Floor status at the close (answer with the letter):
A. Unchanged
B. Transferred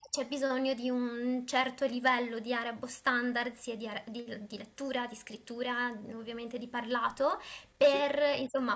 A